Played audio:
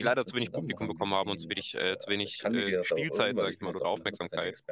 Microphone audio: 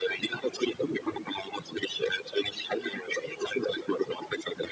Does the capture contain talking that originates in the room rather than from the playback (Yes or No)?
No